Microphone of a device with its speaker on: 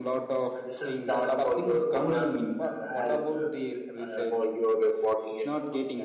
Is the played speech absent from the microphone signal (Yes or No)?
No